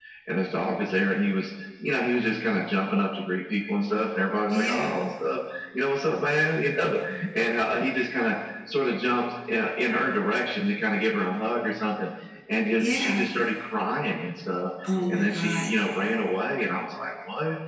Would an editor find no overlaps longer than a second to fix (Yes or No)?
Yes